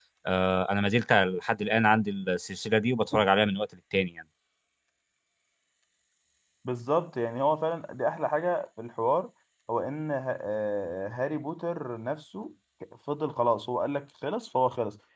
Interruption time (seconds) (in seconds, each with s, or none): none